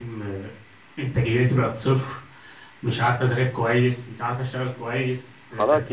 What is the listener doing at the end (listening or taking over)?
taking over